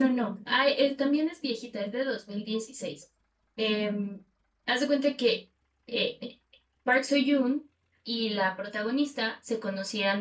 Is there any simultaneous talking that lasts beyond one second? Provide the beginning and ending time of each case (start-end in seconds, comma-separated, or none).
none